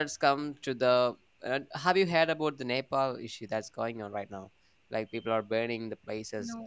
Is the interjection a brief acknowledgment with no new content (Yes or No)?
Yes